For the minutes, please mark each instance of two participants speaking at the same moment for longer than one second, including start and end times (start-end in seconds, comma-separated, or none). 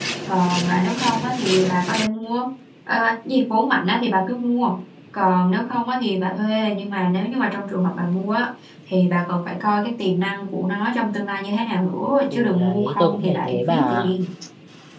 12.3-14.1